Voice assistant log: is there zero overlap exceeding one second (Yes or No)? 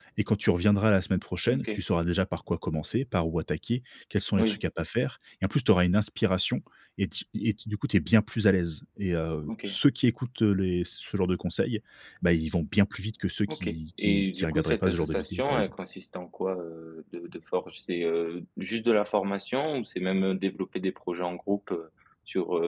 No